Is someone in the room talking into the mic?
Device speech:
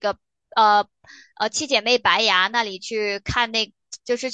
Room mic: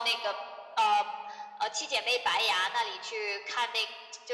No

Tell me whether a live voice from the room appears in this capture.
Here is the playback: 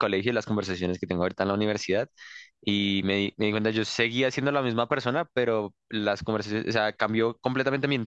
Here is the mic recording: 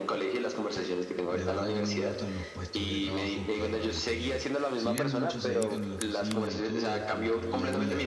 Yes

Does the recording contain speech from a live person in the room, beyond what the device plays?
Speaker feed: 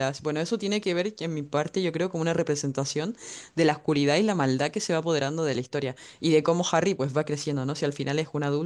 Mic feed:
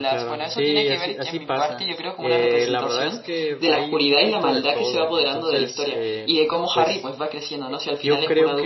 Yes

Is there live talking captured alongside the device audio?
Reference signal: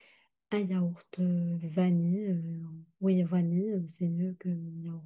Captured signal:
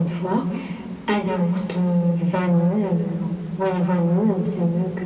No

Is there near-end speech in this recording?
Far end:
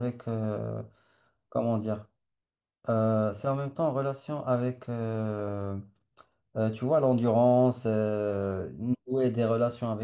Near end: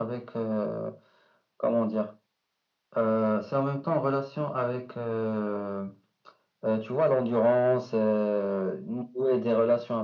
No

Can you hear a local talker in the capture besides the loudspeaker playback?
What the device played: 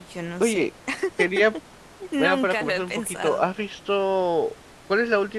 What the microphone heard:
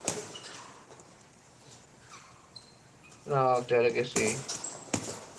Yes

